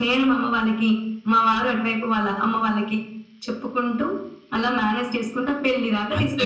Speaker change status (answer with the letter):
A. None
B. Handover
B